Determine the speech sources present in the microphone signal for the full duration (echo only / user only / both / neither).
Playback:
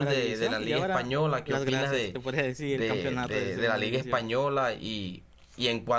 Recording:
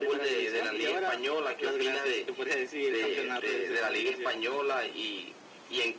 echo only